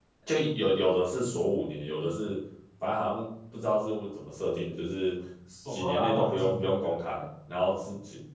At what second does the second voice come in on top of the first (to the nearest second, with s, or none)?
6 s